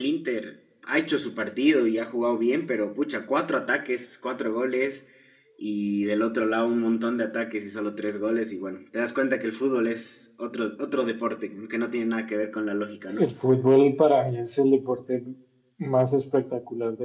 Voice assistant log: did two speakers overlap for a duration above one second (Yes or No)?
No